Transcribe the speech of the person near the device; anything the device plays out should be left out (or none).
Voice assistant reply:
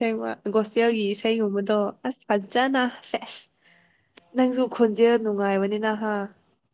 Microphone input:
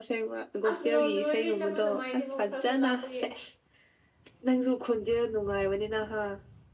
ꯑꯁ ꯅꯣꯡꯖꯨꯔꯤꯗꯤ ꯆꯠꯄ ꯅꯨꯡꯉꯥꯏꯇꯦꯐ ꯈꯔꯁꯨ ꯂꯥꯞꯄꯒꯤ